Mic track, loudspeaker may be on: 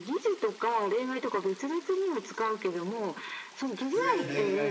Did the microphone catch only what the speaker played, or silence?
No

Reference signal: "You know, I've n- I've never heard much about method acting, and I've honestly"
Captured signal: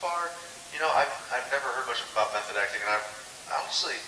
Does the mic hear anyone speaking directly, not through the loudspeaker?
No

